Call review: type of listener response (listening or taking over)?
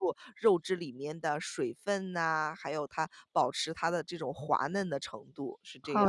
taking over